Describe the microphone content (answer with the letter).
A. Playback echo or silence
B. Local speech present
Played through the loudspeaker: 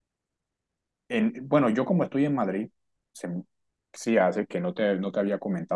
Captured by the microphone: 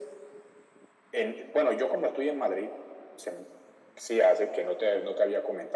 A